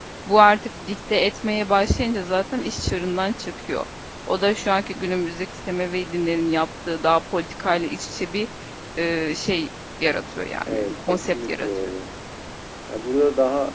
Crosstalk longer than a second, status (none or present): present